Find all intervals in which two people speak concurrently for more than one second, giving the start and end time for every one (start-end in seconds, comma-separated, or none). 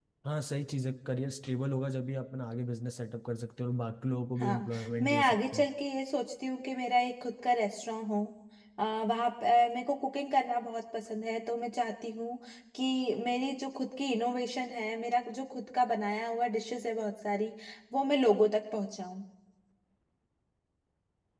4.4-5.7